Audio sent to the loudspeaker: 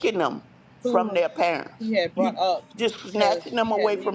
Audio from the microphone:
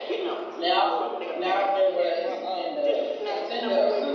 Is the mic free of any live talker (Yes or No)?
No